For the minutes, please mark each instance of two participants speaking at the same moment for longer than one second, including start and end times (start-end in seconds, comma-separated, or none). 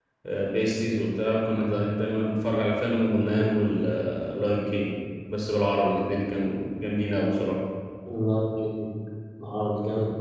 none